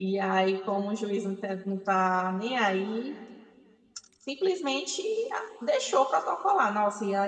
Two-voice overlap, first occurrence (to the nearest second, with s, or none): none